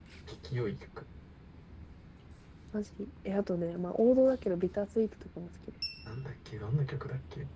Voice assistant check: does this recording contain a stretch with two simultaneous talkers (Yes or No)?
No